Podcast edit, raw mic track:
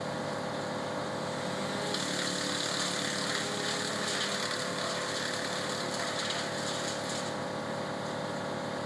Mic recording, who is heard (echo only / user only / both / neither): neither